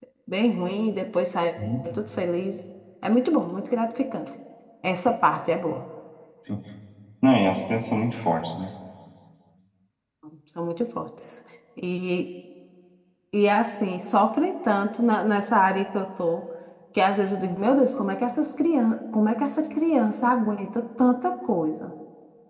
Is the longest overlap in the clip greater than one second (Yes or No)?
No